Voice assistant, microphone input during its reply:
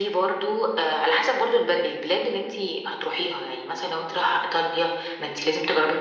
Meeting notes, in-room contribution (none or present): none